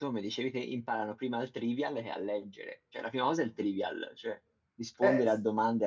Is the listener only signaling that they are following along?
Yes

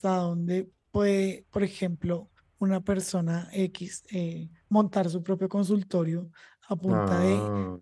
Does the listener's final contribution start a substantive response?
No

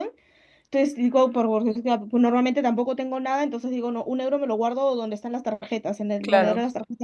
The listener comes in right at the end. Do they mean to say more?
No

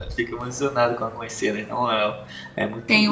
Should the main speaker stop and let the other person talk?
Yes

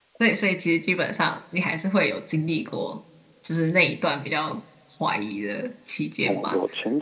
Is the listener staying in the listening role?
No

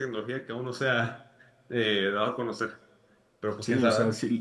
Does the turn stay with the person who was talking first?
No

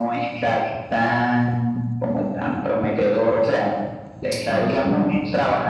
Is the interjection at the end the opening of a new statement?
No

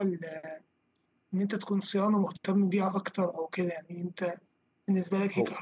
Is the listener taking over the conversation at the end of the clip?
No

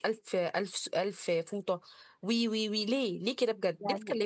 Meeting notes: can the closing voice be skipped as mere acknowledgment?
No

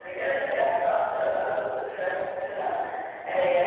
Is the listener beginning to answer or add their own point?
No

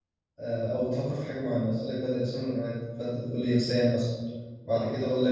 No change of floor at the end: Yes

